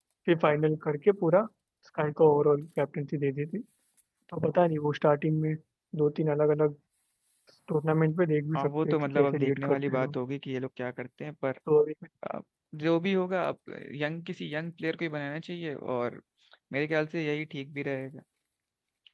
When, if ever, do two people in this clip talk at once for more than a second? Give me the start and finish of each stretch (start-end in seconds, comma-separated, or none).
8.6-10.1